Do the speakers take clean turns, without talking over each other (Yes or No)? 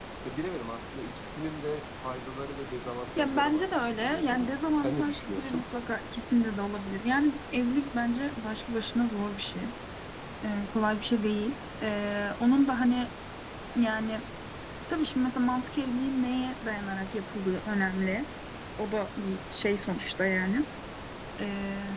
No